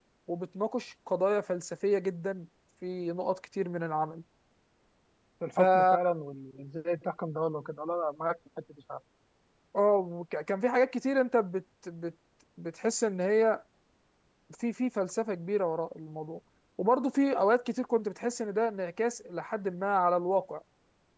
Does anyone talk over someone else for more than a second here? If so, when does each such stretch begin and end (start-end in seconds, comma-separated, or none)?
none